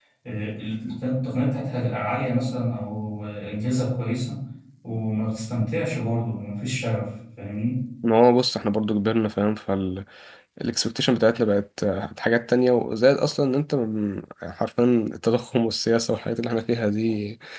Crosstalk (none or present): none